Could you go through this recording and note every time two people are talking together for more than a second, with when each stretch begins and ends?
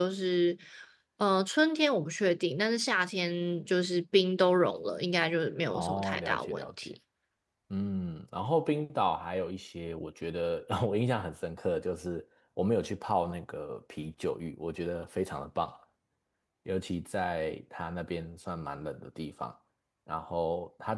5.7-6.9

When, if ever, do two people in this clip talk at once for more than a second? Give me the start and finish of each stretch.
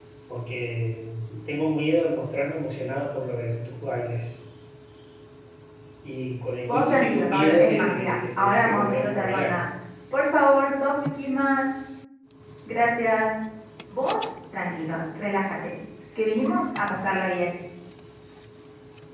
6.7-9.6

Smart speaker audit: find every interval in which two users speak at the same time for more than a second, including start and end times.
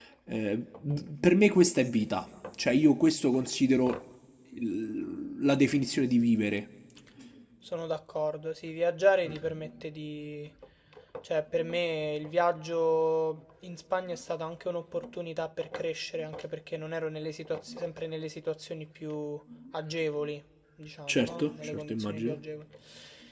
21.1-22.4

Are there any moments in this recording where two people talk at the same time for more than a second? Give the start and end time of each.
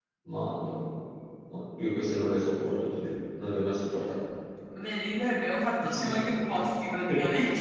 none

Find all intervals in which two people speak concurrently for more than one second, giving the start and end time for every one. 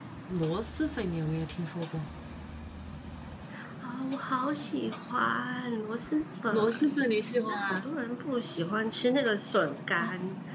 none

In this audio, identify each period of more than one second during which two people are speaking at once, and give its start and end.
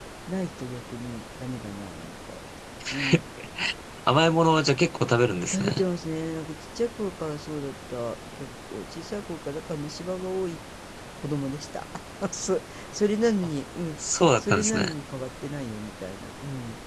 none

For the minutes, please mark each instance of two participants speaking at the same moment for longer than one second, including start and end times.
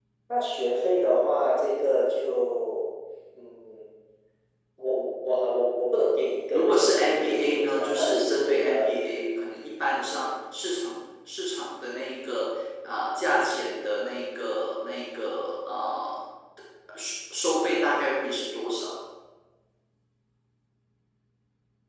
6.5-9.0

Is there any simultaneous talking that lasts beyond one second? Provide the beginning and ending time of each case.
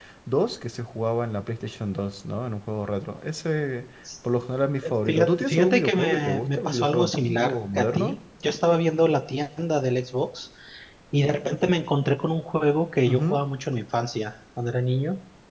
4.8-8.2

